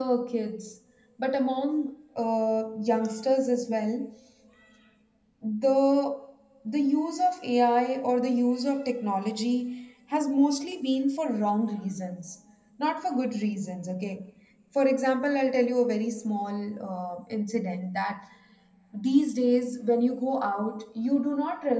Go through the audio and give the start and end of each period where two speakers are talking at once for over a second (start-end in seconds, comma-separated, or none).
none